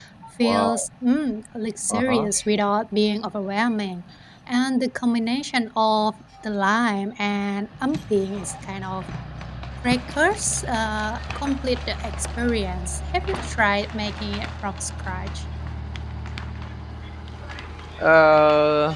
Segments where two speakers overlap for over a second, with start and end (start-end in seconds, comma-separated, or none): none